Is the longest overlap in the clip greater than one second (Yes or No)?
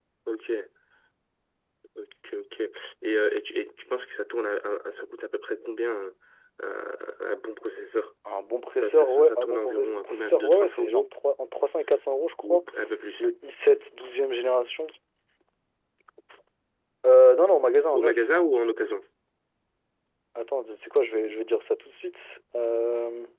Yes